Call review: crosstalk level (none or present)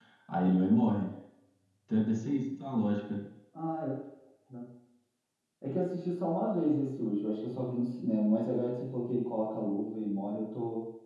none